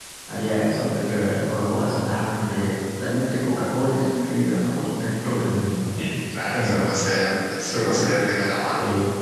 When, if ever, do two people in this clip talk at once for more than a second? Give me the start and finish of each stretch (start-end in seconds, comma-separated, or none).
none